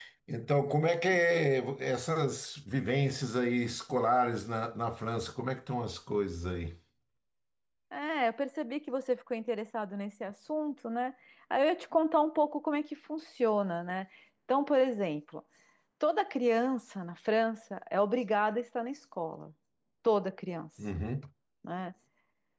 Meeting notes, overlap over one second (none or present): none